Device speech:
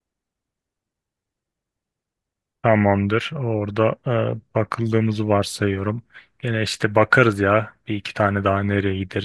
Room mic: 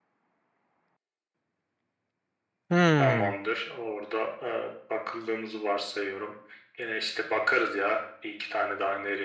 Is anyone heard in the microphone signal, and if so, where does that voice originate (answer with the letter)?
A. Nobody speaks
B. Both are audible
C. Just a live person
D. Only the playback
B